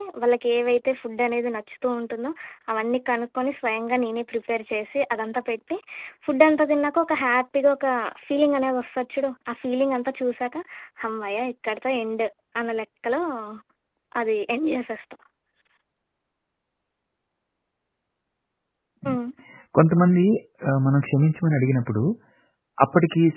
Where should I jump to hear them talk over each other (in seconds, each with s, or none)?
none